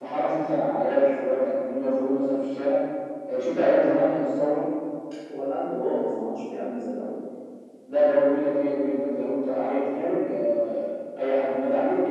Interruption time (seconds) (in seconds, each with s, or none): none